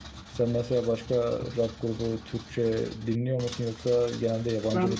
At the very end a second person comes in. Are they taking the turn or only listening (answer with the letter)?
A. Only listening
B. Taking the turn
B